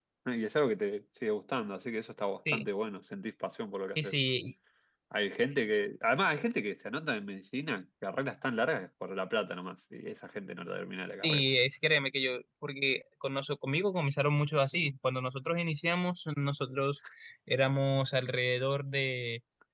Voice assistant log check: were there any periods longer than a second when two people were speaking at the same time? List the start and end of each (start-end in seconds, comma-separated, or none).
none